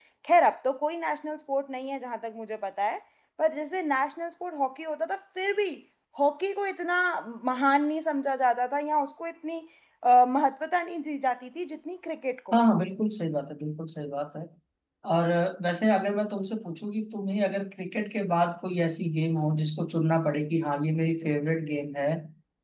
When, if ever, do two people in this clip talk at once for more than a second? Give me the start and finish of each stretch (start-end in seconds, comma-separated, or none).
none